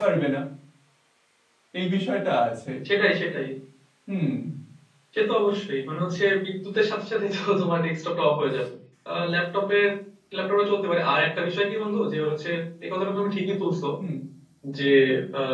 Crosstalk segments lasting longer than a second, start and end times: none

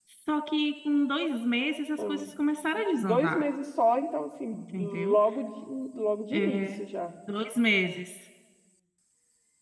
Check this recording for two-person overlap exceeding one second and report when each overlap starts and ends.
none

